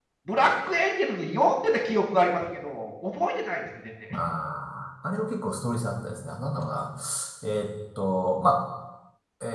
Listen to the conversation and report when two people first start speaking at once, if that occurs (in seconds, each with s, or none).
none